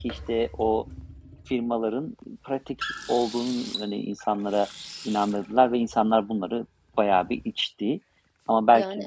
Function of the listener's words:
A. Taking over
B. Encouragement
B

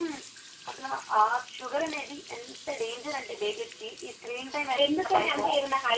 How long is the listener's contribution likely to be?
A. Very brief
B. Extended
B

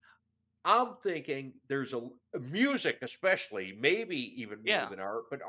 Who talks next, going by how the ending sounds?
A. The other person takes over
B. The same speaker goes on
B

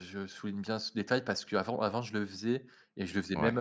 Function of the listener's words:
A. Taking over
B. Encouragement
B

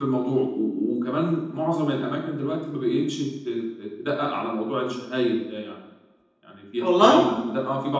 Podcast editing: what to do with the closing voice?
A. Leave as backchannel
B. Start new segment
A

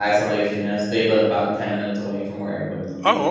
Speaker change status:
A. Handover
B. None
A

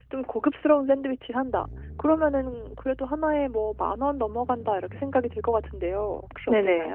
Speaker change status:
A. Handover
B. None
A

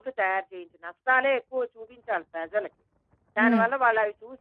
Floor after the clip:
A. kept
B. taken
A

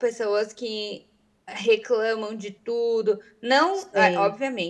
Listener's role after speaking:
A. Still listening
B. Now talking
A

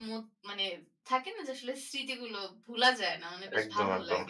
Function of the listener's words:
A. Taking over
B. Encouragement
A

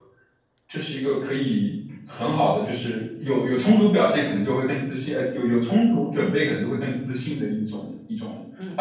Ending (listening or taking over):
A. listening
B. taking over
B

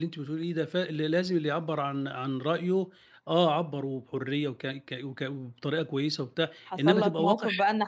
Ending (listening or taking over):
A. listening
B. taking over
B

